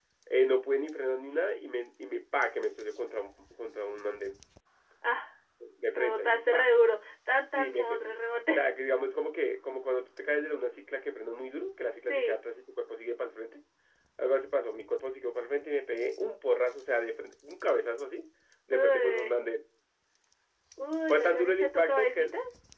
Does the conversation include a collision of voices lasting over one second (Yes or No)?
Yes